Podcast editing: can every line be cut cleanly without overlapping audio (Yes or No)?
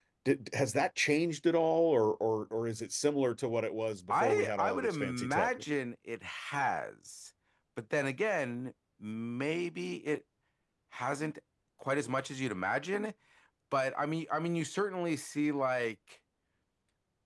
No